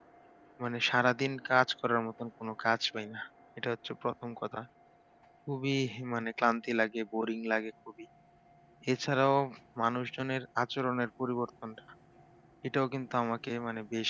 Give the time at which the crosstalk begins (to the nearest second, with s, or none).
none